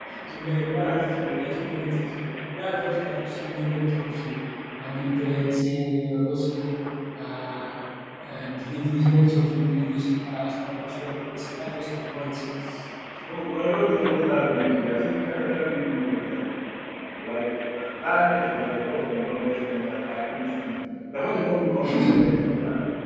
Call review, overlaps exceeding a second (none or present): none